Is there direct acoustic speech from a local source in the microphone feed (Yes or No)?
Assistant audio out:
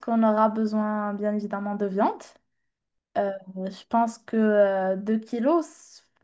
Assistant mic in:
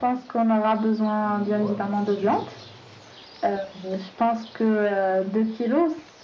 Yes